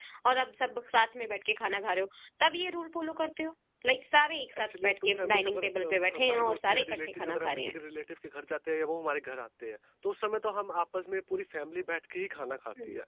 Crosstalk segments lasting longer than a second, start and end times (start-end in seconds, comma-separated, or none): 4.6-7.8